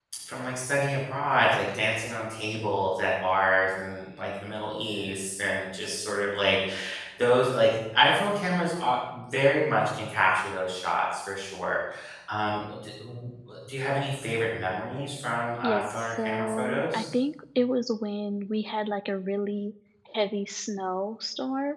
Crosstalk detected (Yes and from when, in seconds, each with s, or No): Yes, from 15.6 s